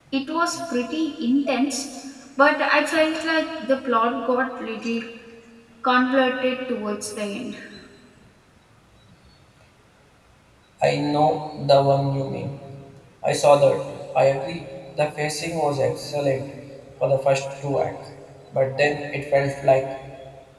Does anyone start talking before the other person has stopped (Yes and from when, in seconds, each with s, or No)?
No